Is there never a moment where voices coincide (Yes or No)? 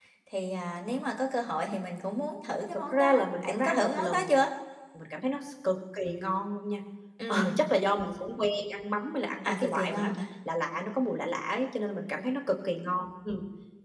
No